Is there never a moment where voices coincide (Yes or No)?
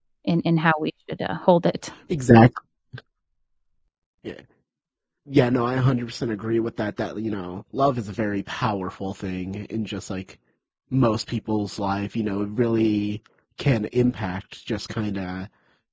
Yes